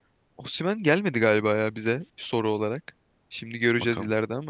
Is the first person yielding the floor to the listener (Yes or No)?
No